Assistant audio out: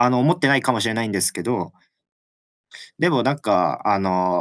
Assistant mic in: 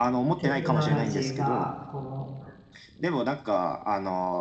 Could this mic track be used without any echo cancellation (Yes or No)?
No